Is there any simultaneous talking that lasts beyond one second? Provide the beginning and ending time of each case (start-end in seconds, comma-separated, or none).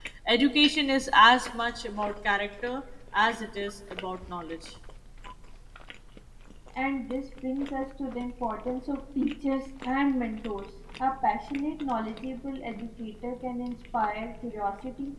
none